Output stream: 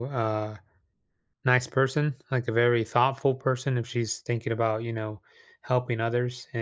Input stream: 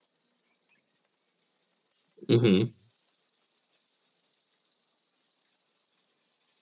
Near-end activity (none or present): present